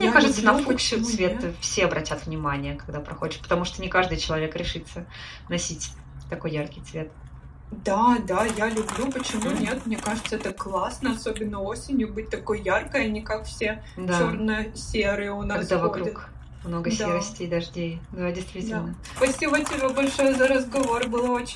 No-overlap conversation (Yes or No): No